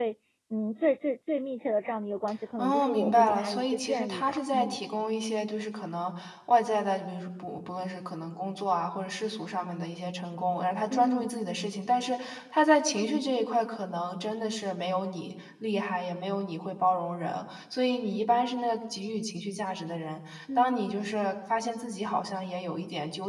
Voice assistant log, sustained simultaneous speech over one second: present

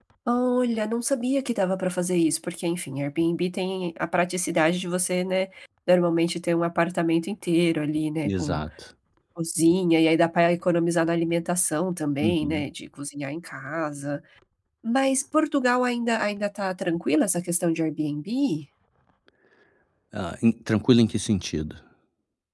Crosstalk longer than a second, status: none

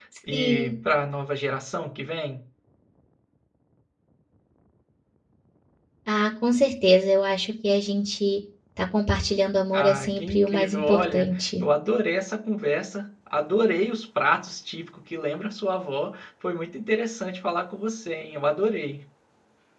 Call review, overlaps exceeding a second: present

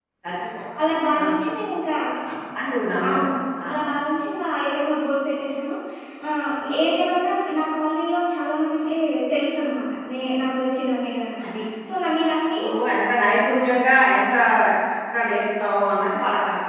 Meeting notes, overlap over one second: none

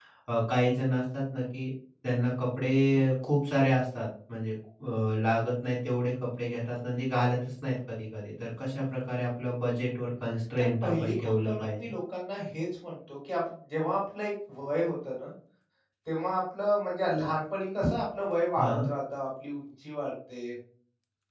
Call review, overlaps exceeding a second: present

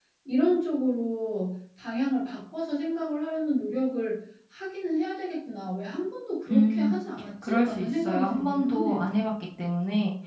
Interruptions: present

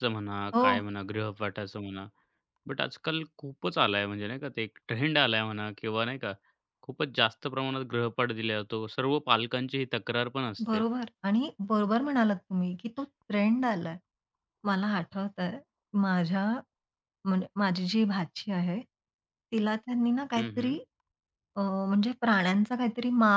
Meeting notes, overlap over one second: none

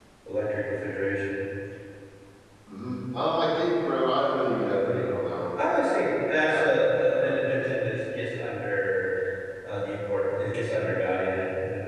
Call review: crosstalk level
present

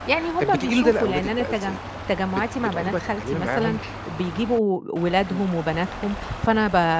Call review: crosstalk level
present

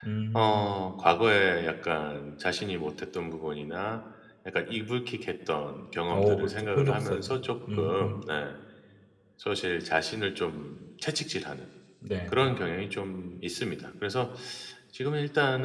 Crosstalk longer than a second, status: present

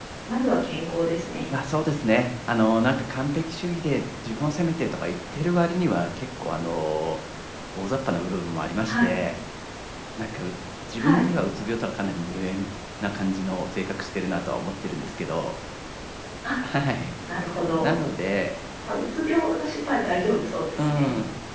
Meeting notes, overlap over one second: none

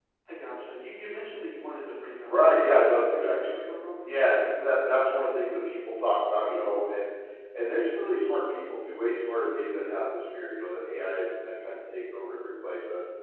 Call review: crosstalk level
present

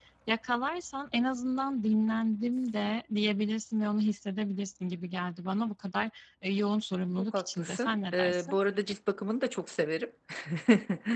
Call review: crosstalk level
present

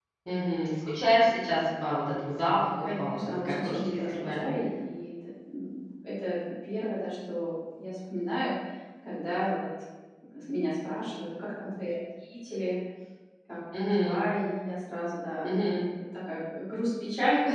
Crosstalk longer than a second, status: present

